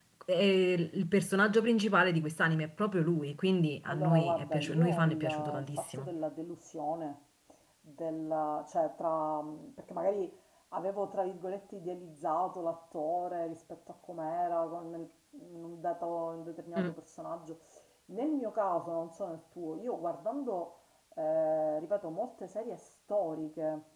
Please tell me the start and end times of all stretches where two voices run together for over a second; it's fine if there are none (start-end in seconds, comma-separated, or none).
3.9-6.1